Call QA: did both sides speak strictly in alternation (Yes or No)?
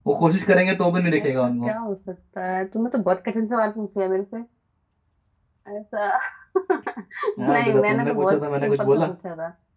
No